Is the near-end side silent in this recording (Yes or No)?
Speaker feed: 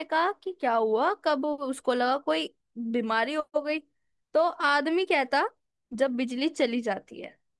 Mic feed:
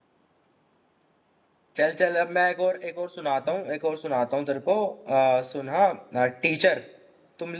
No